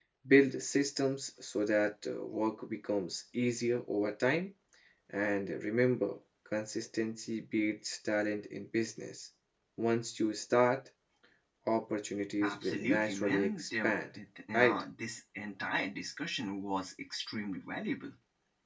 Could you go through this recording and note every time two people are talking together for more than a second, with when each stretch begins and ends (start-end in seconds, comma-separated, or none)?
12.4-13.9